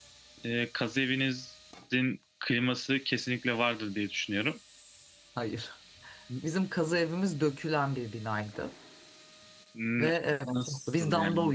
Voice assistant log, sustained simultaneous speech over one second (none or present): present